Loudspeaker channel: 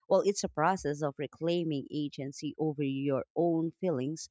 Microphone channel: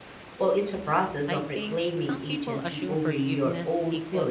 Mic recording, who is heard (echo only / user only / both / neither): both